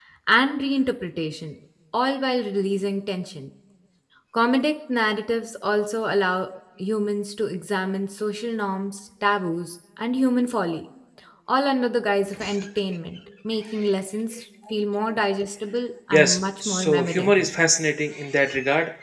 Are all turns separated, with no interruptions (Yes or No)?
No